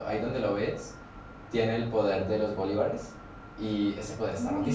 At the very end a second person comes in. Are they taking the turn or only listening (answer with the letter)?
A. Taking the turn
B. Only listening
A